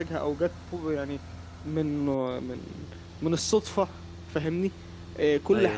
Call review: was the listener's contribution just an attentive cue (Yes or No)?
Yes